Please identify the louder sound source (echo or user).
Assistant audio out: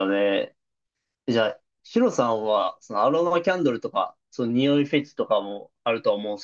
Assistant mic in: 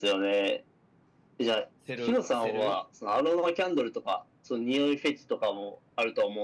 echo